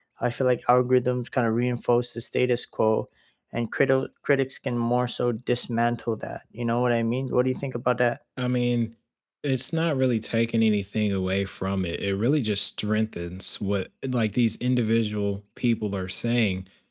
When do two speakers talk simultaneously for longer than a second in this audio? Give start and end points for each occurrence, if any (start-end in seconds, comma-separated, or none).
none